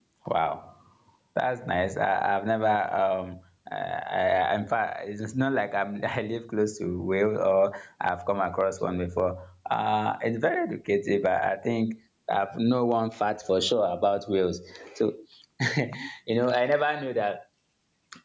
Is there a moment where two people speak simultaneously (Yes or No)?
No